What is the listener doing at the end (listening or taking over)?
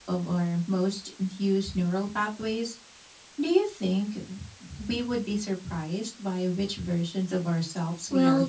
taking over